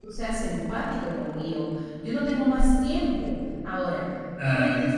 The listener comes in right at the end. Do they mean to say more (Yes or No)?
No